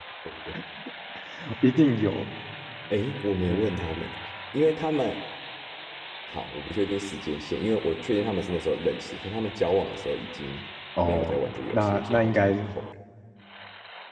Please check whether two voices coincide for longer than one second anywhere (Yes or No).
Yes